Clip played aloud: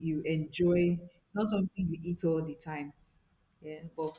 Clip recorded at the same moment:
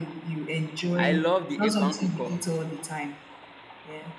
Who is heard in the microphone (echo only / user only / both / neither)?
both